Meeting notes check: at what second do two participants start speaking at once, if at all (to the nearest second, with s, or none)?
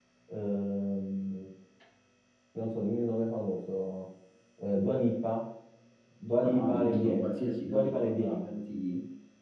6 s